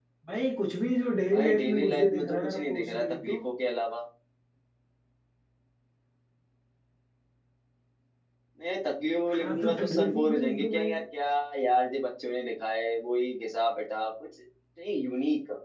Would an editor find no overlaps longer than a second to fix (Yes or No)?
No